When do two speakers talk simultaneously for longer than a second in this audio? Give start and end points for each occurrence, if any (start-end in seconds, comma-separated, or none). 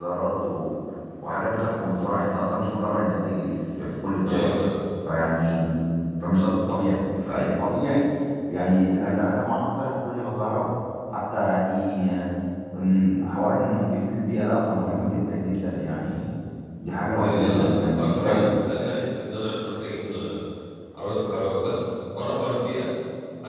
17.2-18.6